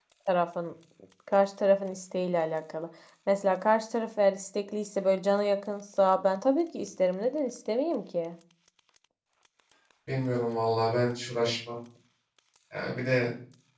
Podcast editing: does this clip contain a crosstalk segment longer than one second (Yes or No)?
No